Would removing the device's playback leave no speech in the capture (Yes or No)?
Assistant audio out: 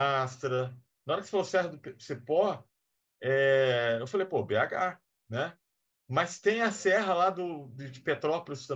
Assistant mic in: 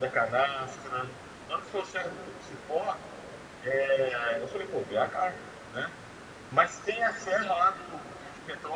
Yes